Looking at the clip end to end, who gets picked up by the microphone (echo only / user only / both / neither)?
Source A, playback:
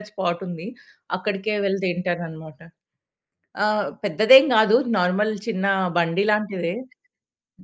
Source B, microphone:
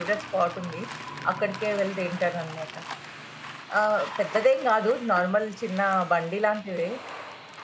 echo only